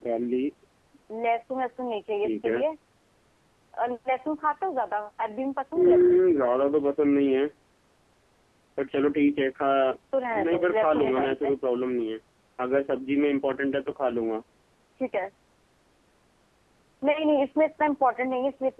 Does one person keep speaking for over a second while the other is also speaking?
Yes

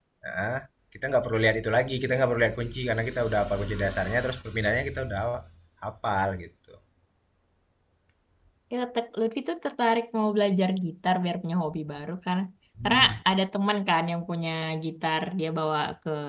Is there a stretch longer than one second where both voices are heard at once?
No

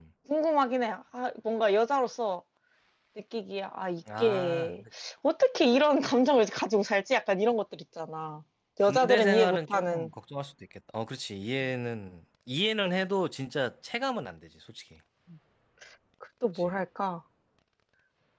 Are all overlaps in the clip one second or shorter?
No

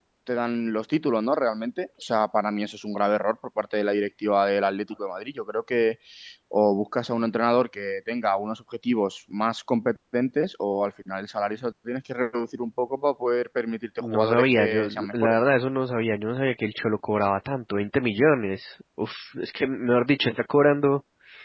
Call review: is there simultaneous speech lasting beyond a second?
Yes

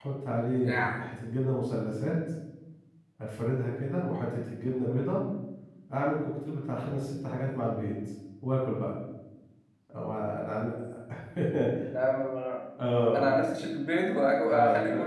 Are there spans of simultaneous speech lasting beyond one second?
No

